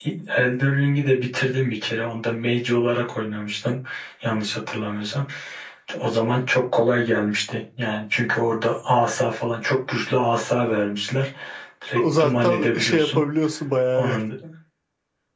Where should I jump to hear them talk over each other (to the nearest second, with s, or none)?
12 s